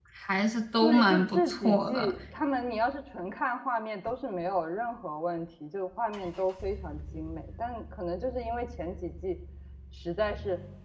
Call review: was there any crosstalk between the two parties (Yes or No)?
Yes